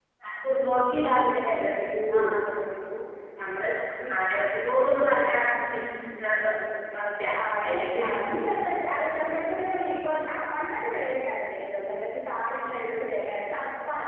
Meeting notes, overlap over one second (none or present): none